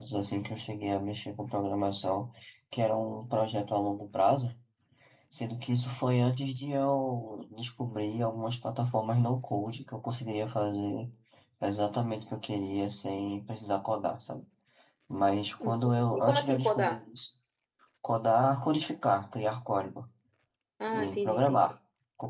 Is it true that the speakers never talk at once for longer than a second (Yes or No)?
No